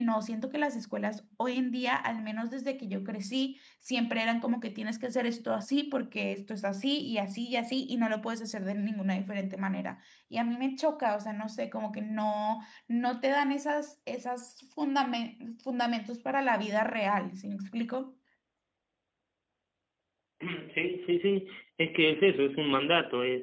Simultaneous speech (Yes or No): No